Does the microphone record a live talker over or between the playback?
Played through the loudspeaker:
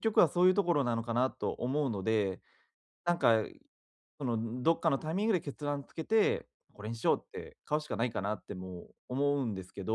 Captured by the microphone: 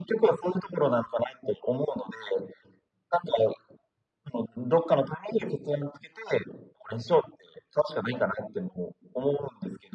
No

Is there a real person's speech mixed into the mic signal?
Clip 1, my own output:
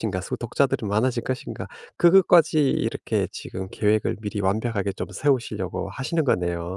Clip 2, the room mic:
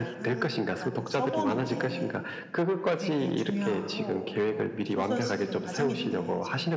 Yes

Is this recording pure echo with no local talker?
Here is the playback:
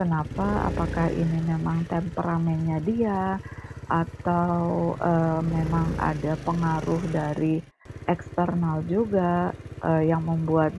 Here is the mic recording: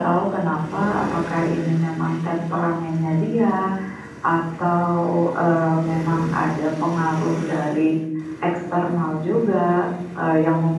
Yes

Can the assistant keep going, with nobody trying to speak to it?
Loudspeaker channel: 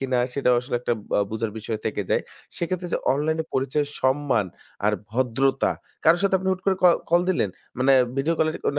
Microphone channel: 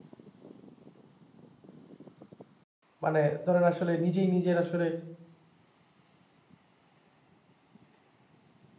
No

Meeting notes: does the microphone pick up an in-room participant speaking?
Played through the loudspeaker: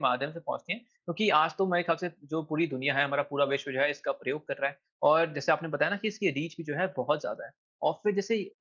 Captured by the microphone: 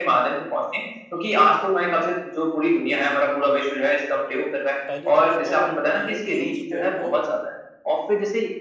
Yes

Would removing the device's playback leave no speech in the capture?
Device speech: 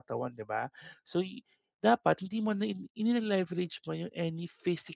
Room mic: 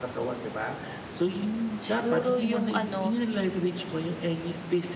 No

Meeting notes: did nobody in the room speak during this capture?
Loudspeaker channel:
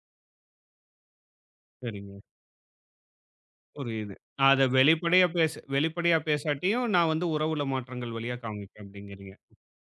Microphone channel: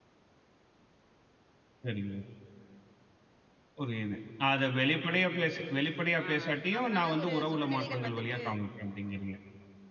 No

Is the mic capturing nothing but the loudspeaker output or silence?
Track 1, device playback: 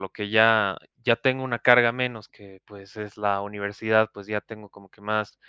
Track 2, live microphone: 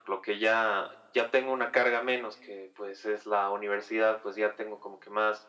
Yes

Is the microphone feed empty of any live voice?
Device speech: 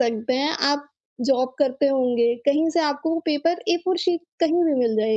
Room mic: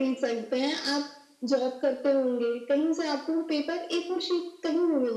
Yes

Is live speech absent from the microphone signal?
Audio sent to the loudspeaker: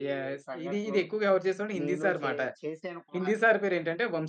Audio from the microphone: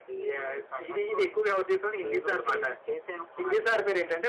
Yes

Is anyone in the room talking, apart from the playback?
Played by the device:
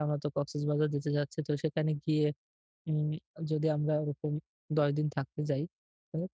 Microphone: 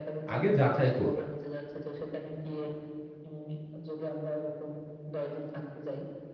Yes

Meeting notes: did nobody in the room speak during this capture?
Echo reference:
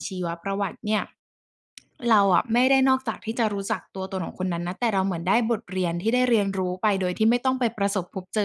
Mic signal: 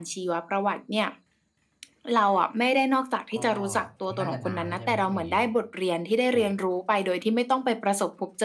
No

